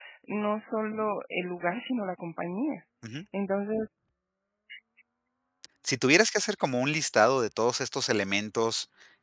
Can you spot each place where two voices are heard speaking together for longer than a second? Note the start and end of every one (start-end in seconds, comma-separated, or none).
none